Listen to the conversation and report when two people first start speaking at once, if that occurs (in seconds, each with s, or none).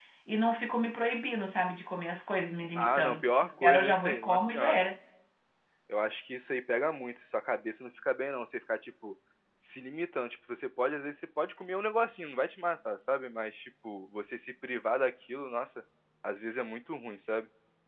2.8 s